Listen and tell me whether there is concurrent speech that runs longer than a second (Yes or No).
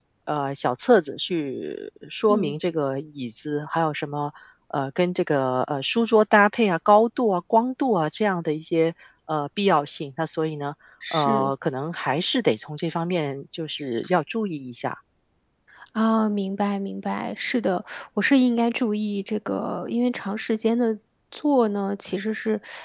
No